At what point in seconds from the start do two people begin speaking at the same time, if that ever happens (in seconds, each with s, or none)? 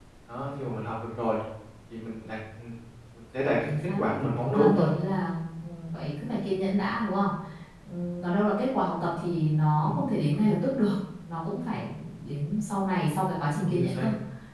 3.7 s